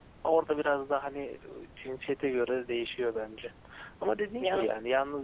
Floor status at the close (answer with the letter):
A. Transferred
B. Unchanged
B